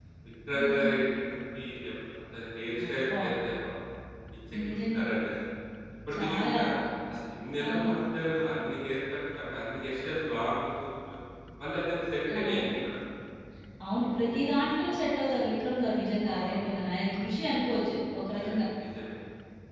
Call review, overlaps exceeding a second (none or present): none